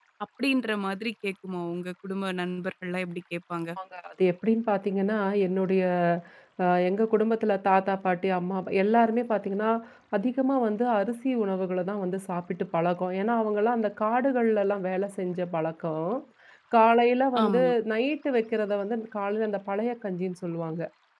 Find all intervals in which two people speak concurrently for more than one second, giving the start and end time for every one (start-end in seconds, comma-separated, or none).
none